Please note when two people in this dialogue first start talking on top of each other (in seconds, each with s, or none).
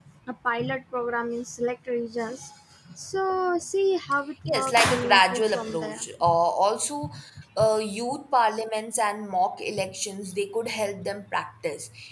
4.5 s